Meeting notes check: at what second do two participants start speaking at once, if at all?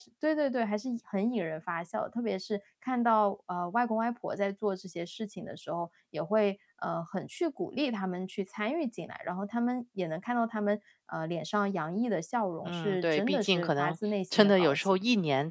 12.6 s

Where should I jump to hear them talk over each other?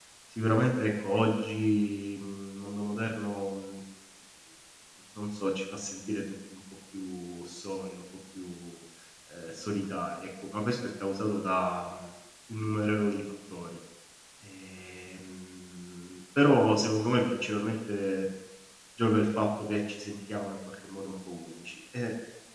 none

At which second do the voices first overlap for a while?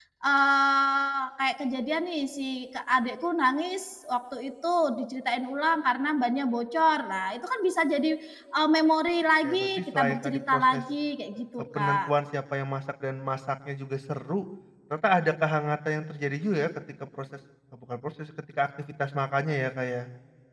9.4 s

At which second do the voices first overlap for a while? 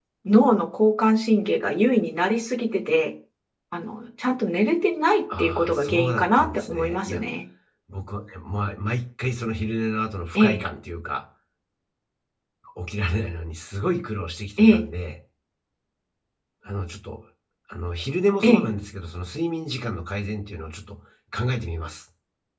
5.4 s

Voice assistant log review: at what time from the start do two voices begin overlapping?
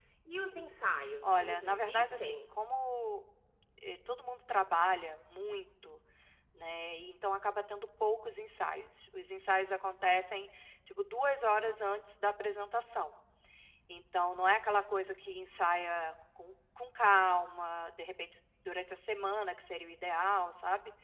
1.2 s

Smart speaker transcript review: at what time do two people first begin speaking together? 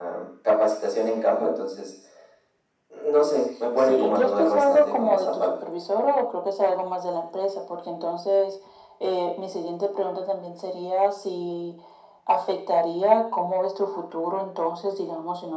3.8 s

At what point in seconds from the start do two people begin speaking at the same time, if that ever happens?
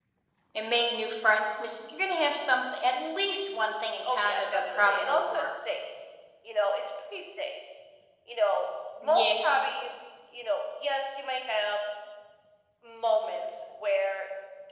4.0 s

